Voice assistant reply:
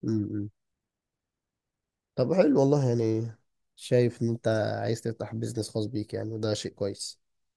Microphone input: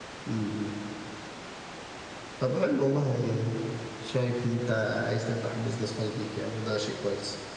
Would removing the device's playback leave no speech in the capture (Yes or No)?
Yes